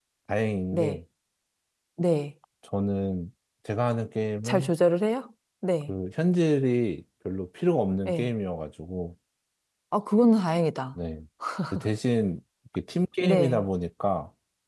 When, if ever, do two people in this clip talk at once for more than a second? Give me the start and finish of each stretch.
none

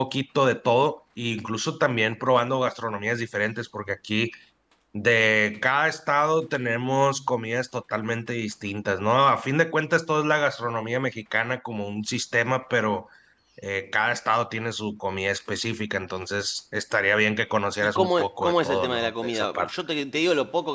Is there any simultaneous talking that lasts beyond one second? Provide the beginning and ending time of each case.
17.8-19.7

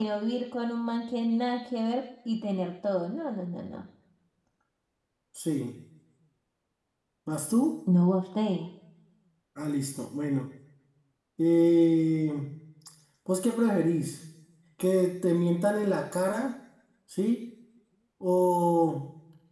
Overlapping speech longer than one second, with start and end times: none

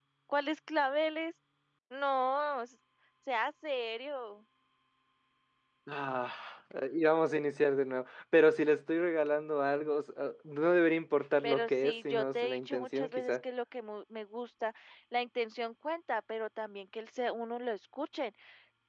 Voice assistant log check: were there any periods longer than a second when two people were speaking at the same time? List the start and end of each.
11.4-13.4

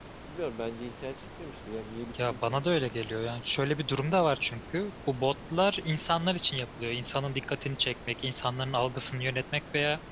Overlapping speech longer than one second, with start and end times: none

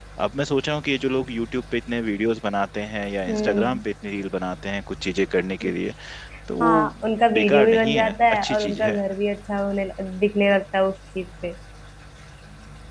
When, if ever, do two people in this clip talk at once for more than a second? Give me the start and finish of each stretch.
7.3-9.0

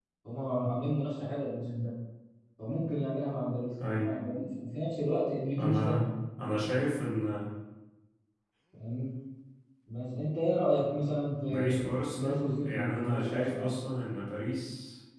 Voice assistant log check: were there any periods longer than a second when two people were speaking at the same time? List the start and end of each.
11.5-13.8

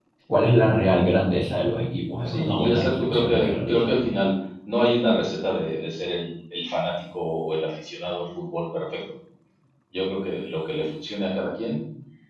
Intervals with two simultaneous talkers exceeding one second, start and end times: 2.2-4.1

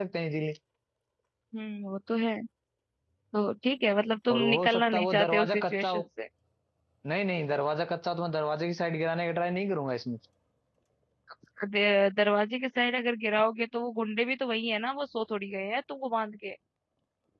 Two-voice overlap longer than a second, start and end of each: 4.3-6.0

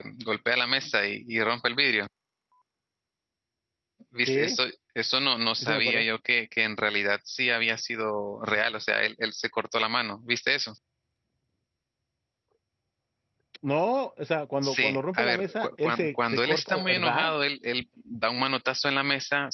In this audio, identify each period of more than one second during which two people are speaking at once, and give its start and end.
14.6-17.3

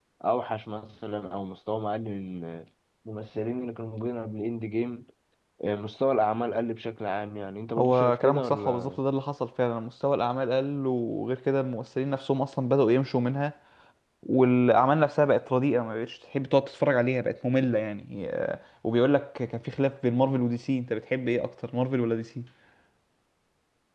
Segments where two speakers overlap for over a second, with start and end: 7.8-9.0

